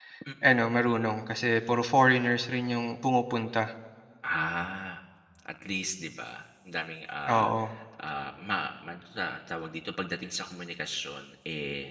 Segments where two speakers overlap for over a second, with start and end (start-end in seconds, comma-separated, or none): none